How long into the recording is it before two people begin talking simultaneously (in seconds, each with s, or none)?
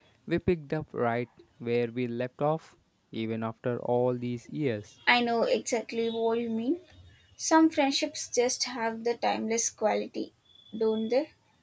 none